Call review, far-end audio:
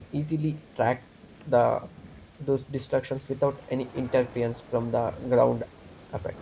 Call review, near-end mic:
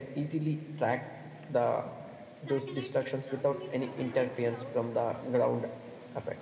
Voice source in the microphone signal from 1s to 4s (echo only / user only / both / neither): both